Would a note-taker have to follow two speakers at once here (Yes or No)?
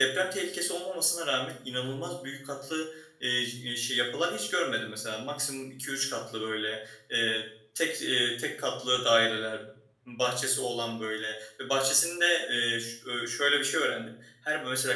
No